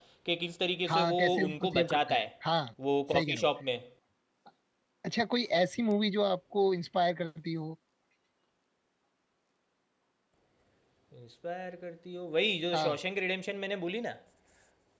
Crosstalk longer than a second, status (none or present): present